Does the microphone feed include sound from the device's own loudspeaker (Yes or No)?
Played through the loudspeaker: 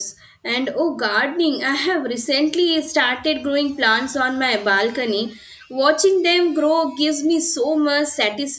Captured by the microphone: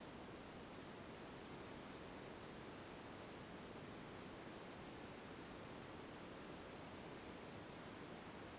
No